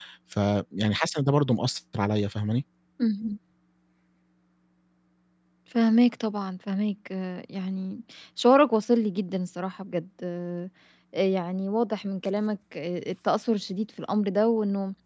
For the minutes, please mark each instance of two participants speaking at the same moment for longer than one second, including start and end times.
none

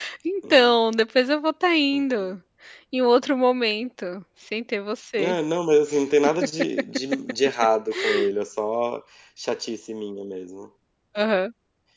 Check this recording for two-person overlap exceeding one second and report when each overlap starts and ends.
none

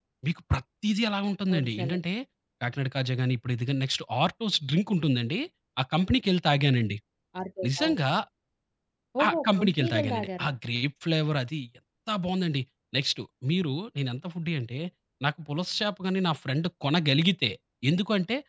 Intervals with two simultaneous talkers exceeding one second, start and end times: 9.2-10.5

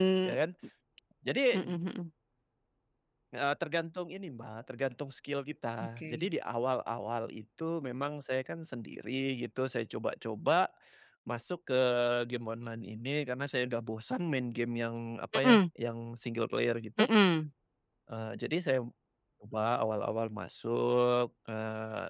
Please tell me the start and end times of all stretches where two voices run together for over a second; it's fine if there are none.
none

